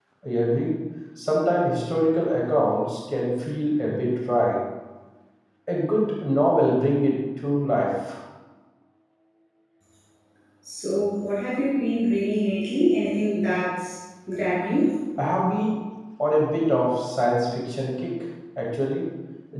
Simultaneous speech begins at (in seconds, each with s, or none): none